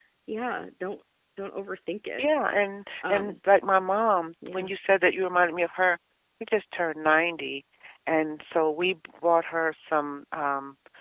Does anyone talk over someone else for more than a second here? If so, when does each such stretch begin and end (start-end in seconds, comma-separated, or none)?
none